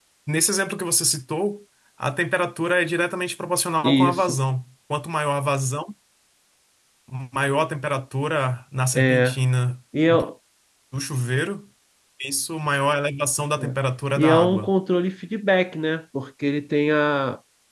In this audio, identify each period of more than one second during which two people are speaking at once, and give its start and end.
none

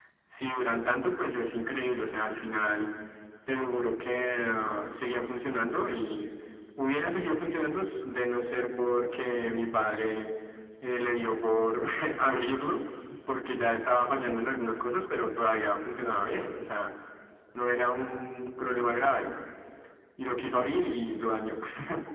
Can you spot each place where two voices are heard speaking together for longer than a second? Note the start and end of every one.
none

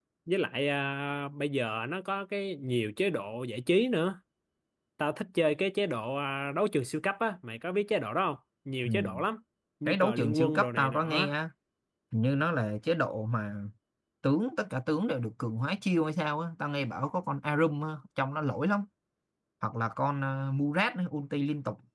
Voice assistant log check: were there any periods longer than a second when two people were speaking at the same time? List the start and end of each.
9.9-11.3

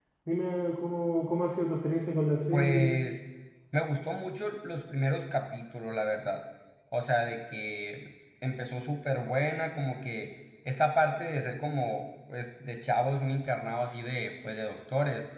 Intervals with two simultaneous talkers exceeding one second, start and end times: none

